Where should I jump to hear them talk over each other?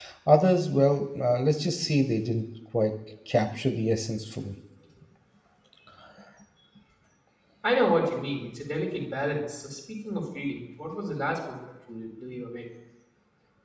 none

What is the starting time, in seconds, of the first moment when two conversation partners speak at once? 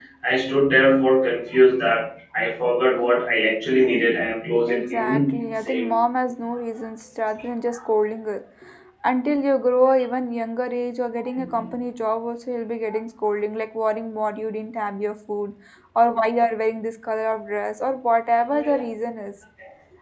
4.7 s

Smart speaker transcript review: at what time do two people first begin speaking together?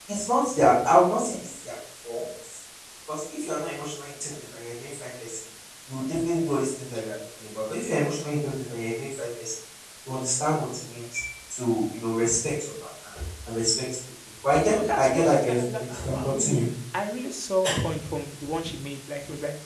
14.7 s

